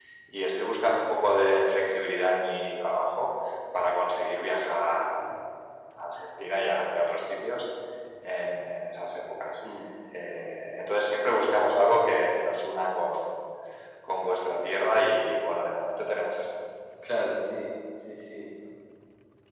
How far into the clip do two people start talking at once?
none

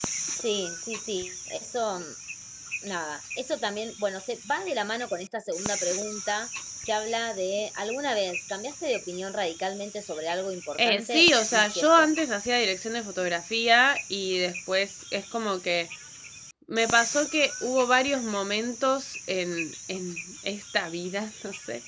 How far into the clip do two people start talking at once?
10.8 s

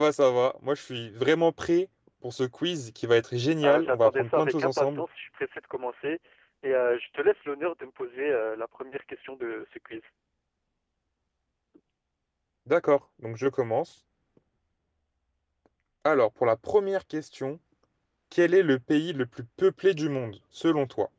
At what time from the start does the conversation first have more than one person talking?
3.6 s

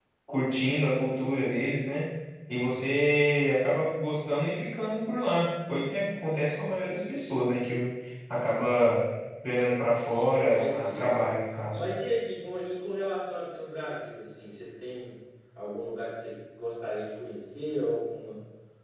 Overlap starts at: 9.9 s

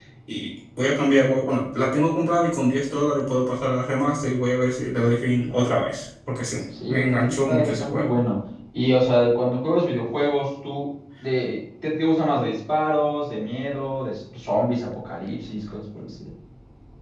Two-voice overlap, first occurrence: 6.7 s

